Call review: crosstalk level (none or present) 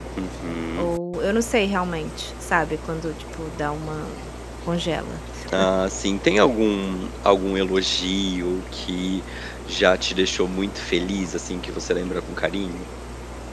none